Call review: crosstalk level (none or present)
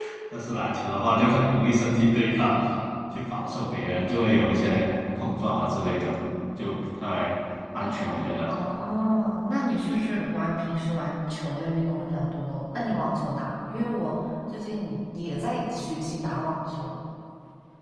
none